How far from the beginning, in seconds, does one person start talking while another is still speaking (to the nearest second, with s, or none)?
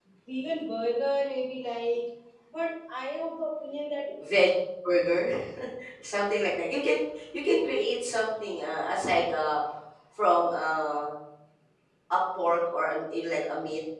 none